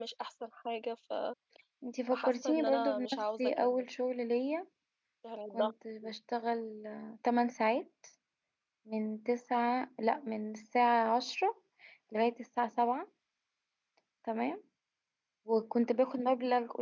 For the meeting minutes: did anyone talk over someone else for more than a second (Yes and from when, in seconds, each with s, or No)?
Yes, from 2.1 s